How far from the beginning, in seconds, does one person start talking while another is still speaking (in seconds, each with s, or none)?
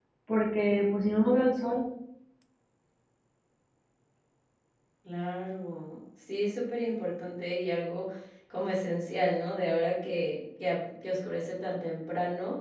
none